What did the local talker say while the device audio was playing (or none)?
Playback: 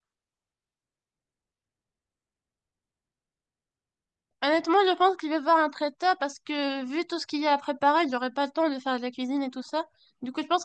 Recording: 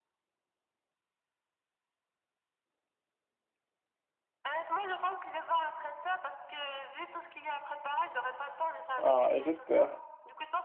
Ah, j'espère.